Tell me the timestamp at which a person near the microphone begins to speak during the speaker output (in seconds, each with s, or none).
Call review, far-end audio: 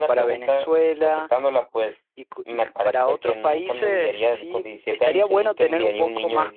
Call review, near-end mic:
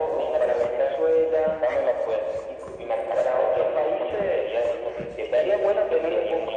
none